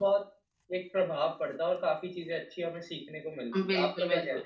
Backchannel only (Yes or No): No